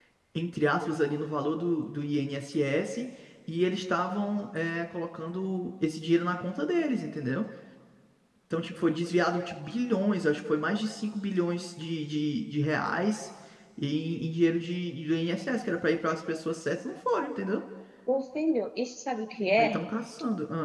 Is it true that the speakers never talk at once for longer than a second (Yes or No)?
Yes